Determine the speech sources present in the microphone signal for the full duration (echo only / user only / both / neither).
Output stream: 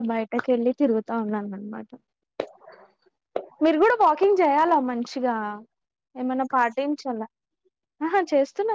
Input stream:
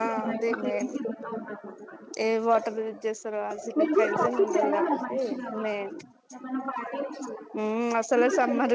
both